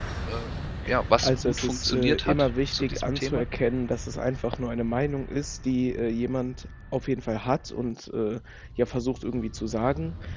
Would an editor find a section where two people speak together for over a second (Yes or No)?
Yes